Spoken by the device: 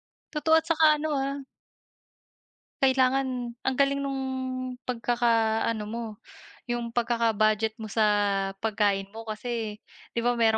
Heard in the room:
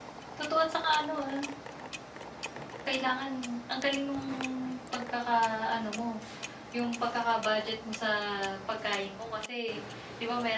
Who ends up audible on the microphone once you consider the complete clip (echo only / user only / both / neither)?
echo only